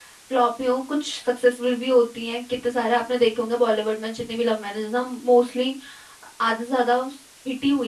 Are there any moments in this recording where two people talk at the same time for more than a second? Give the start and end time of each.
none

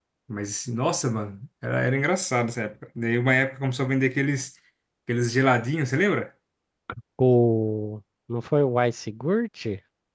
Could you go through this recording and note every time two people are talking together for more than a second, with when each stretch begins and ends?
none

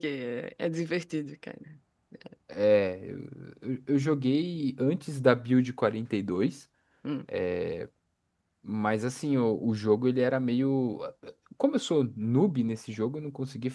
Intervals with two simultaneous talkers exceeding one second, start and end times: none

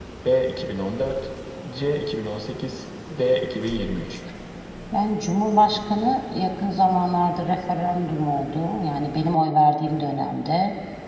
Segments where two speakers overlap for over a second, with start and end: none

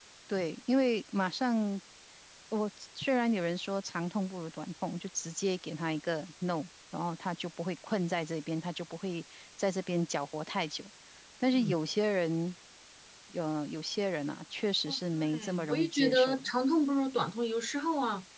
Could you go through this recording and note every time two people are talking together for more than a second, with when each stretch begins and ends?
14.9-16.5

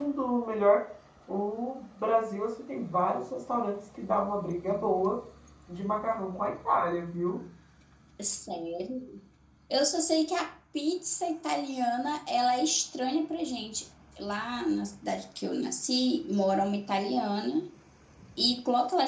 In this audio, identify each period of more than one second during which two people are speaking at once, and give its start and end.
none

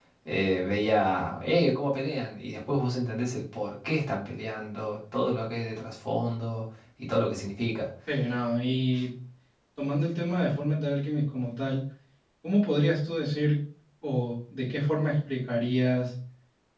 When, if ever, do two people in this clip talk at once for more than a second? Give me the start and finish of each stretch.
none

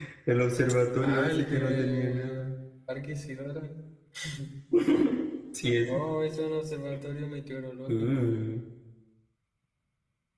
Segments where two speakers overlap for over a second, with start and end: 1.0-2.5

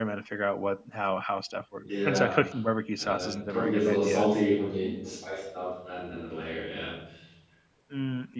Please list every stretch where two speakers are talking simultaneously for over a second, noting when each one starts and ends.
3.0-4.3

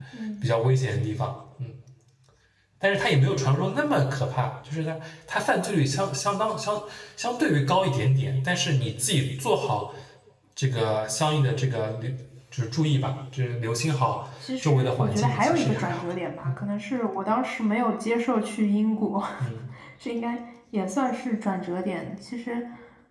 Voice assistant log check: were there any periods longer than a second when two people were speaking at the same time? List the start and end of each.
14.6-16.0

